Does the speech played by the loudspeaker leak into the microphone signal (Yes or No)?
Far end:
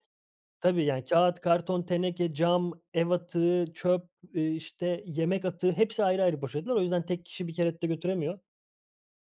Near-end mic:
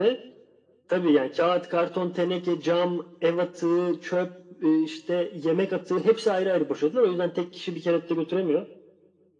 Yes